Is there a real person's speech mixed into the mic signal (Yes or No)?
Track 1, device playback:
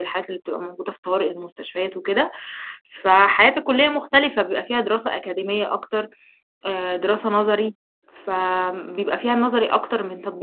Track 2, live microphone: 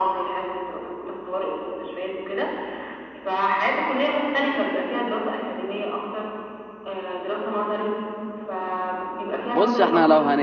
Yes